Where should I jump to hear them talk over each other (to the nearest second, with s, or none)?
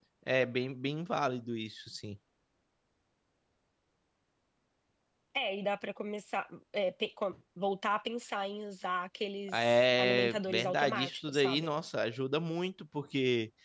9 s